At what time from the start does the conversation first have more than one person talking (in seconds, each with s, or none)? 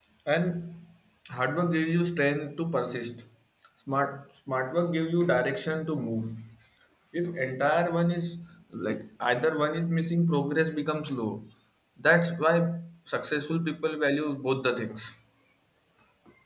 none